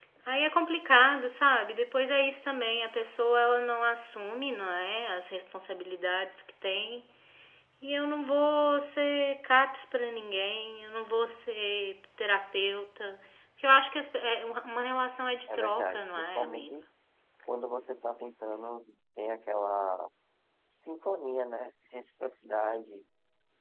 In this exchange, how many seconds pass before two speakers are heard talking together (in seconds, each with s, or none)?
15.5 s